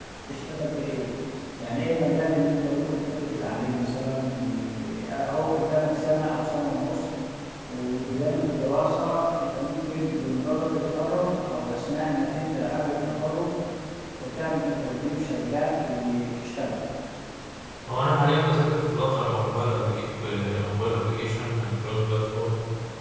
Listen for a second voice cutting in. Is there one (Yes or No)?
No